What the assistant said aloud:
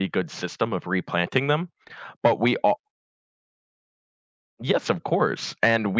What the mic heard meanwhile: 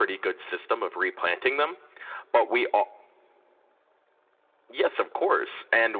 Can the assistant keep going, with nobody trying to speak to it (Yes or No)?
Yes